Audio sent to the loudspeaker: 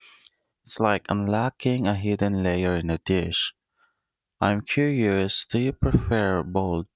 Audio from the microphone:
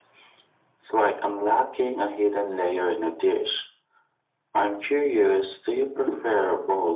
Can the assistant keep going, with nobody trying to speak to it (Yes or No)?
Yes